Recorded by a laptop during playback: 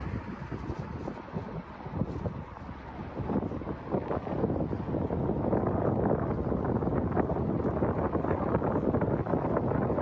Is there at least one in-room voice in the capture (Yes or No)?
No